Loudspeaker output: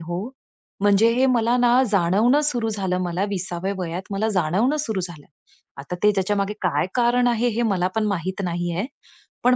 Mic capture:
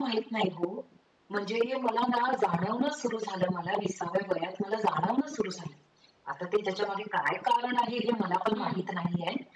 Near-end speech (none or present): present